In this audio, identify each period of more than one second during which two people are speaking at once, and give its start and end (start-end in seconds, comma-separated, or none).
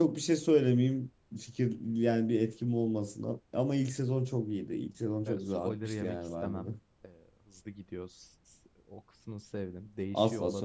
5.3-6.7